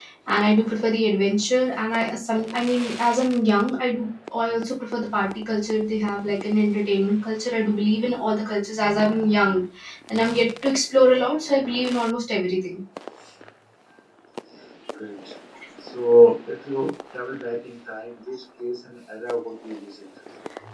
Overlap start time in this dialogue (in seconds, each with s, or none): none